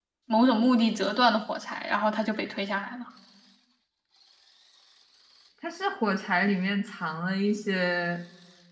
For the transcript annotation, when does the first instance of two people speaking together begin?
none

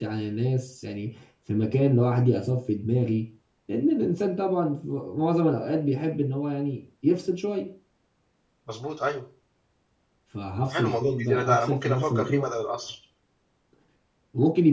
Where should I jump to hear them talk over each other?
10.7 s

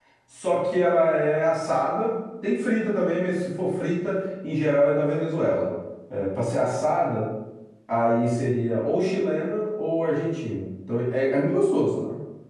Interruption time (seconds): none

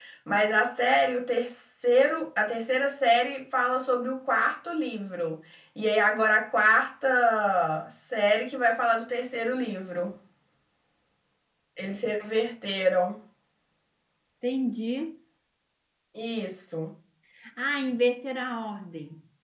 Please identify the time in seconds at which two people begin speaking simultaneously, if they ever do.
none

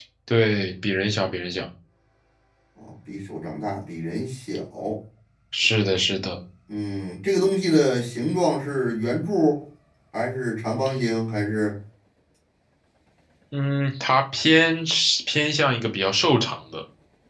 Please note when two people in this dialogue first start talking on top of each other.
none

